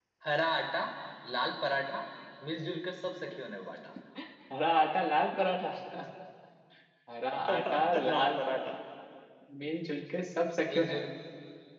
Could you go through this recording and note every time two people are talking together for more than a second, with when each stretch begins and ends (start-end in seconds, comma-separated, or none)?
7.5-8.7